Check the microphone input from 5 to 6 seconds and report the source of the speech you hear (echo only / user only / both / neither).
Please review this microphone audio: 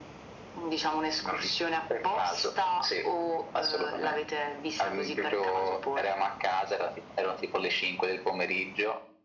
echo only